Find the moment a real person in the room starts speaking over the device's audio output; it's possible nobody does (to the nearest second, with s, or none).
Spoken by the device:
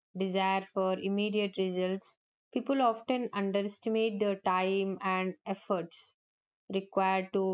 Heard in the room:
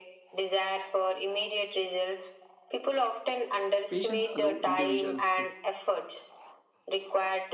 4 s